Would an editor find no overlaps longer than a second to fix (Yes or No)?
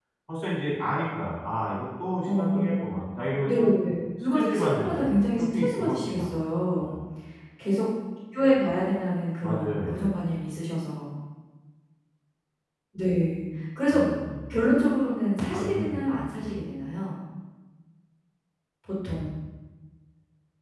No